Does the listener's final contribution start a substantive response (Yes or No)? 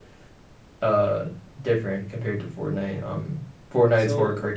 No